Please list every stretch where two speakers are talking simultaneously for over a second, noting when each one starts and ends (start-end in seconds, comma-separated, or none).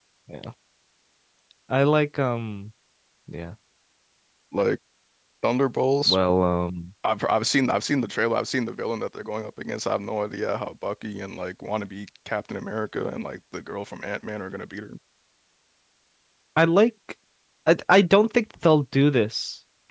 none